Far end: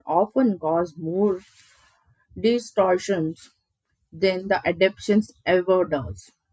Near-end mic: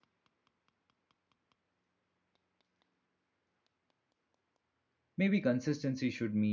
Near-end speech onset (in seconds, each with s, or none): 5.2 s